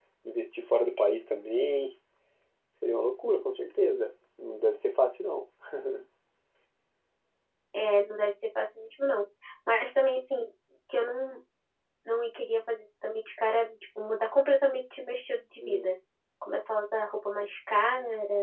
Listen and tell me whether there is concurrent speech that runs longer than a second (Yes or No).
No